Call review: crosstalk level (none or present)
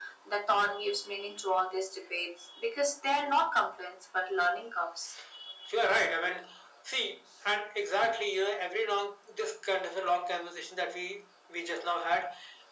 none